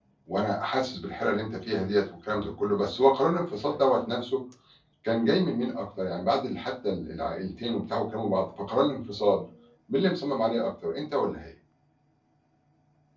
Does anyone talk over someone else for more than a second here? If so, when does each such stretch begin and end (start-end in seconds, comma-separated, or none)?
none